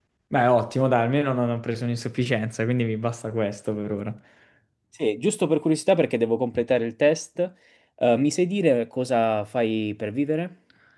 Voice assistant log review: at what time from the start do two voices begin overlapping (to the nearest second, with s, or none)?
none